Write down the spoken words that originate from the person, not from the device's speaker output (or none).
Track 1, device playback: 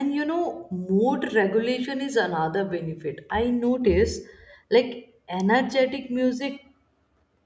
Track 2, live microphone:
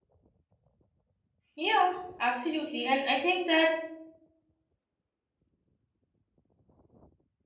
Yeah, absolutely. And I think that